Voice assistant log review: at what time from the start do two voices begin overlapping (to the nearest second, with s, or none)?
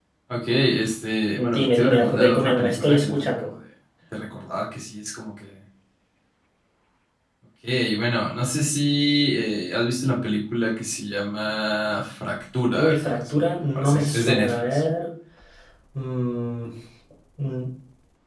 2 s